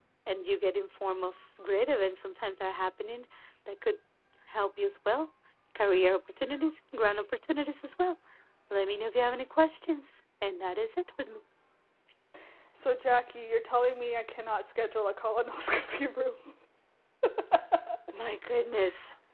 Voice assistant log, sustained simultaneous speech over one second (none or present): none